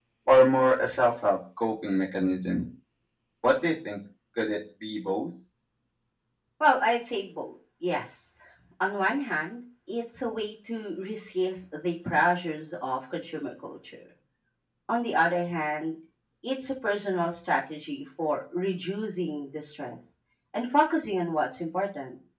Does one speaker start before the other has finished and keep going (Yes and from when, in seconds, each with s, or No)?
No